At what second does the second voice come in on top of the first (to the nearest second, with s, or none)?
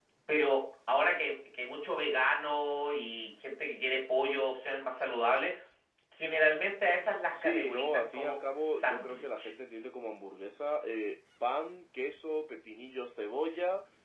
7 s